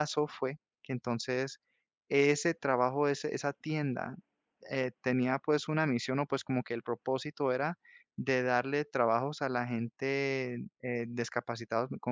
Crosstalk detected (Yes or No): No